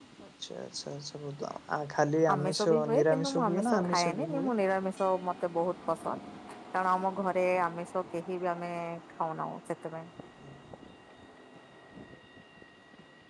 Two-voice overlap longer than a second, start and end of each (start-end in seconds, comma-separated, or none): 2.3-4.5